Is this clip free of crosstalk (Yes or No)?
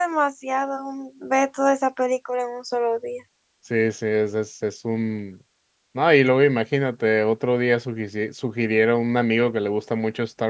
Yes